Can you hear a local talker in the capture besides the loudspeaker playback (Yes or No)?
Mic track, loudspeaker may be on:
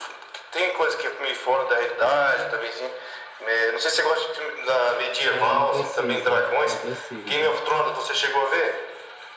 Yes